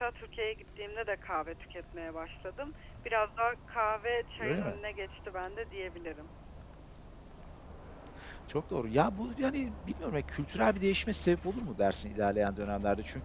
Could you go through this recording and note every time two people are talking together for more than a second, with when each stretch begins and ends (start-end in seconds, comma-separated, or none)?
none